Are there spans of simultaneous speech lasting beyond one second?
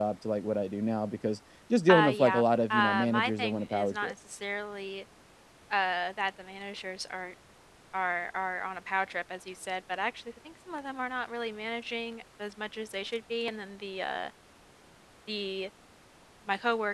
Yes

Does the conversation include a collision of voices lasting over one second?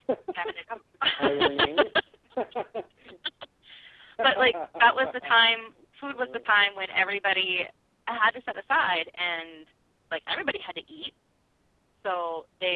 Yes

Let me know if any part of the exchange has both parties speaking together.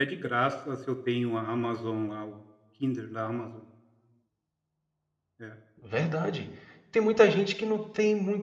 No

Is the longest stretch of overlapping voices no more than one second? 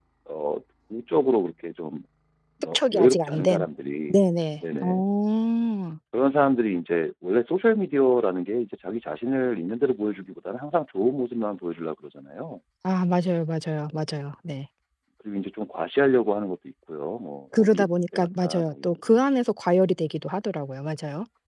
No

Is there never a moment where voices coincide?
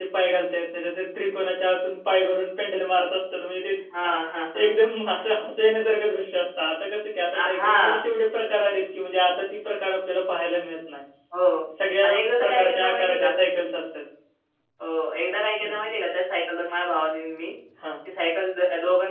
No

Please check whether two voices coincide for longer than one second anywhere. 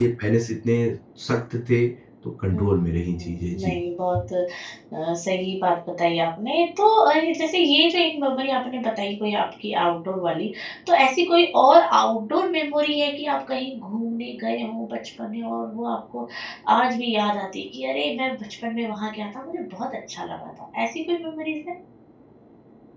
Yes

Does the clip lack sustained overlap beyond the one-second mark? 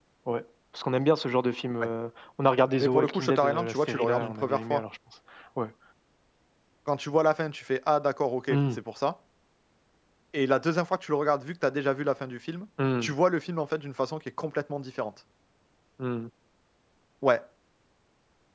No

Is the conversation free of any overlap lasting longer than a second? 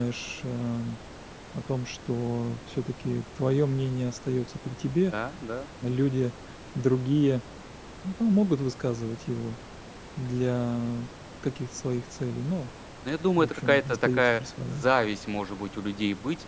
No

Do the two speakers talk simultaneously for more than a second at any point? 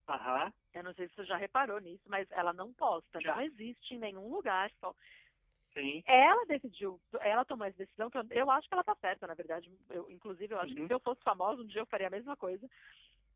No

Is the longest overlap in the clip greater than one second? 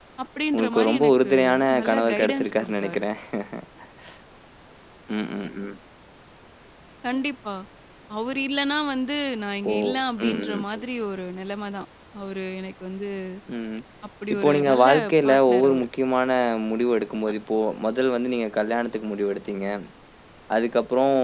Yes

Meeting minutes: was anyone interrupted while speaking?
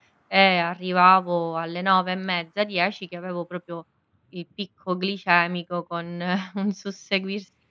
No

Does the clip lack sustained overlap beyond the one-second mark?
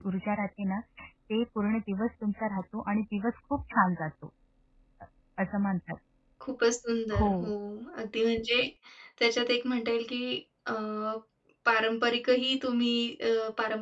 Yes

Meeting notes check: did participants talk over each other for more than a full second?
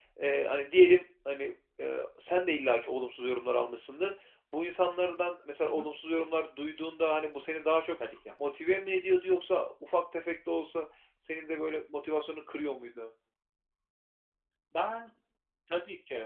No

